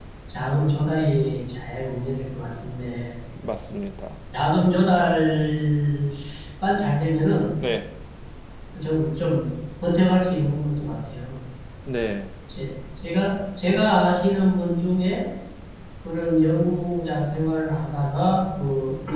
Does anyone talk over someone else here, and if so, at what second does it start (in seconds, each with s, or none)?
none